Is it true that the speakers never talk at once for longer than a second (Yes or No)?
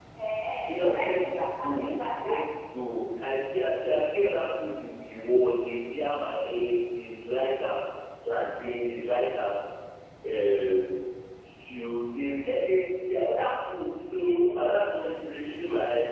No